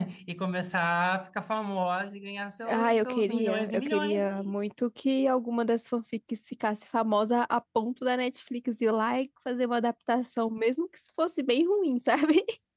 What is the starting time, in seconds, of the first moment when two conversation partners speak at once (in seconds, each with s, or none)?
2.7 s